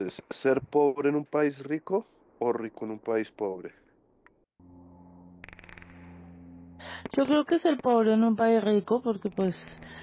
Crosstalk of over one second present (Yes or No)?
No